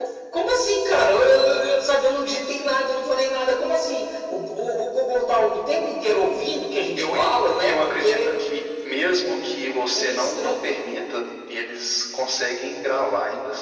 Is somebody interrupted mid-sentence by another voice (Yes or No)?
Yes